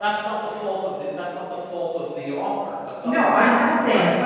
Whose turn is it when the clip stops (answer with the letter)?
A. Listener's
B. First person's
A